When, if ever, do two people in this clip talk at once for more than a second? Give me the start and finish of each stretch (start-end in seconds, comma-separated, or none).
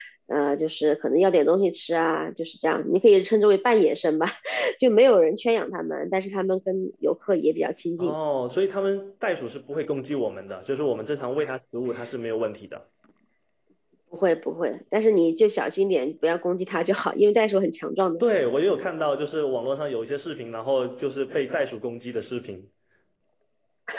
none